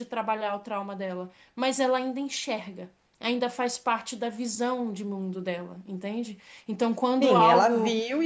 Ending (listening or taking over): taking over